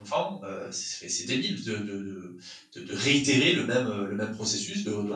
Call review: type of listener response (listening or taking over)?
taking over